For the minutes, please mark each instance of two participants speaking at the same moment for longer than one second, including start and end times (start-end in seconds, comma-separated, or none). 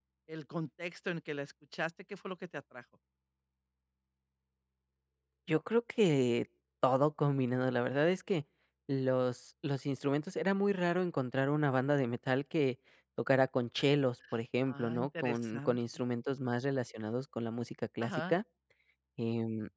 14.7-16.0